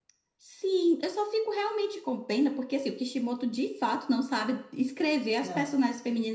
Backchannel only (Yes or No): Yes